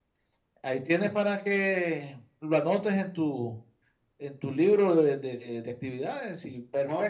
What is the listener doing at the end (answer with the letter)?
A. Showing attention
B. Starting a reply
B